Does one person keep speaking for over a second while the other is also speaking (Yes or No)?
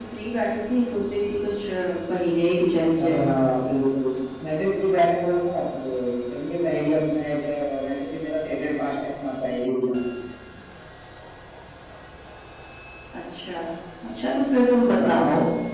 No